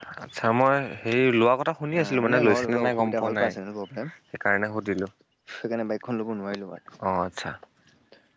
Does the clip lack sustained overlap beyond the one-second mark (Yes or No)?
No